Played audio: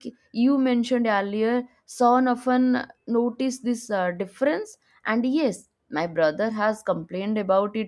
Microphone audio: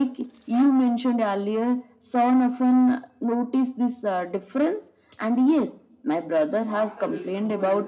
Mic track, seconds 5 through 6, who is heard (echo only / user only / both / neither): echo only